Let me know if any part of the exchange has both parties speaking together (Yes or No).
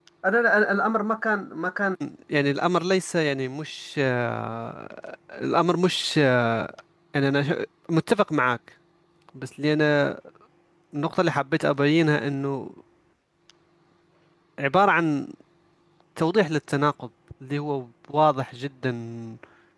No